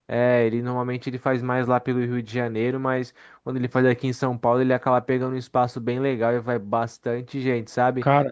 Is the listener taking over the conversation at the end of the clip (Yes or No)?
No